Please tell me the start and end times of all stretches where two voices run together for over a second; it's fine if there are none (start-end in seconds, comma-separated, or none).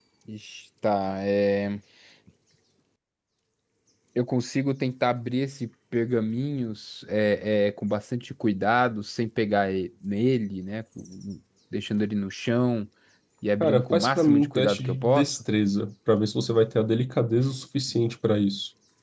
13.6-15.3